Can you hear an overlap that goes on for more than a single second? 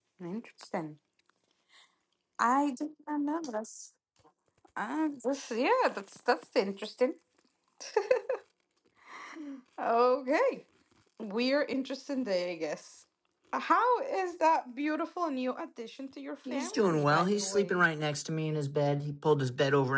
Yes, from 16.4 s

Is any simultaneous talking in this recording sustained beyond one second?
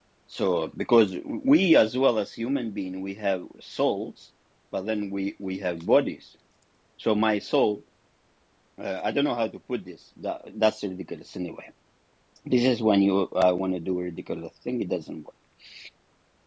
No

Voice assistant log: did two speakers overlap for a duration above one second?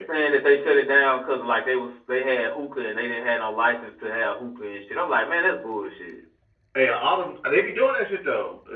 No

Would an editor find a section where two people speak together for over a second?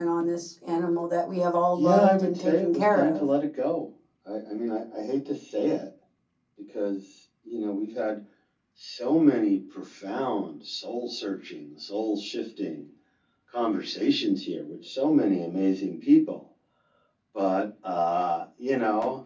Yes, from 1.8 s

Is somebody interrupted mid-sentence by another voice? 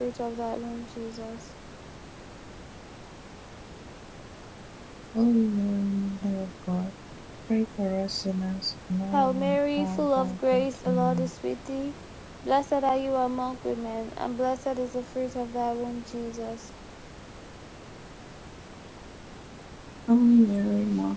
Yes, from 9.1 s

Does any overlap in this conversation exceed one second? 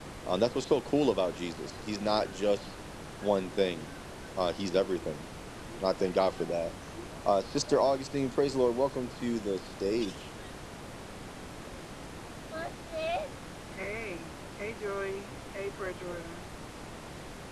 No

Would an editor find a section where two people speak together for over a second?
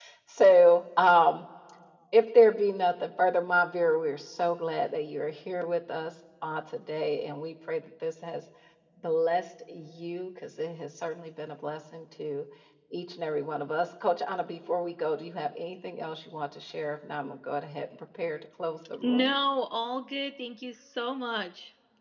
No

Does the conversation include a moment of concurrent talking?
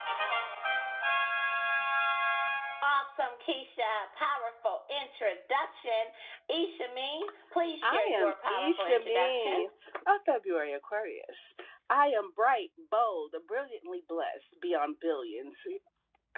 Yes, from 7.8 s

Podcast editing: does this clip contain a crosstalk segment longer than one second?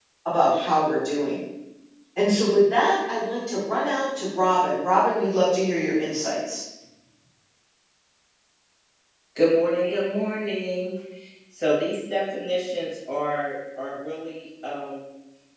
No

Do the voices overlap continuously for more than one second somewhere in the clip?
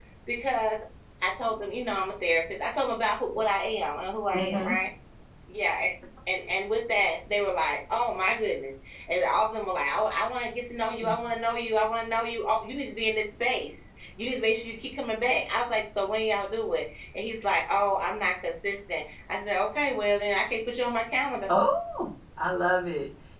No

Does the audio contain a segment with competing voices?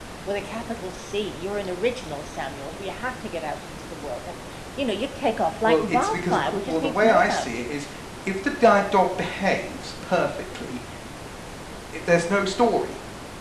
Yes, from 5.6 s

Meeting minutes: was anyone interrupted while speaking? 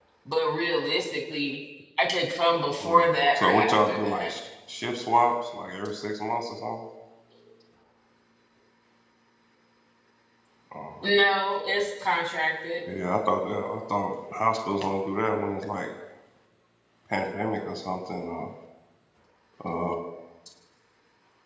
Yes, from 2.8 s

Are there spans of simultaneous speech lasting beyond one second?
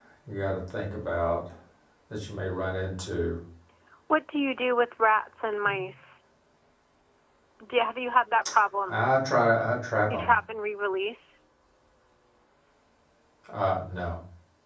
No

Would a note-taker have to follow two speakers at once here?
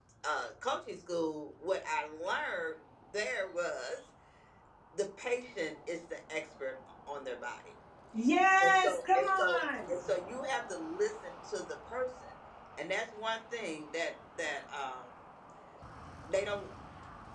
Yes, from 8.6 s

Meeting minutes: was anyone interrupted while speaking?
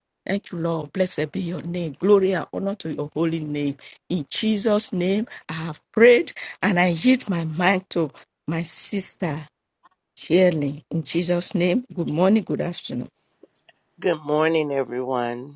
No

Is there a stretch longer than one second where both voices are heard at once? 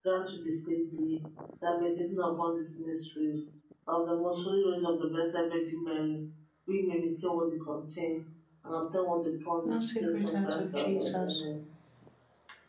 Yes, from 9.7 s

